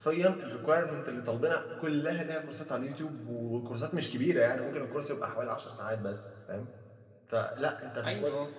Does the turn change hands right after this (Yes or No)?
No